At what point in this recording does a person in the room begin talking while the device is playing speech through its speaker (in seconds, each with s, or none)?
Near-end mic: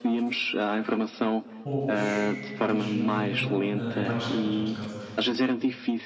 1.6 s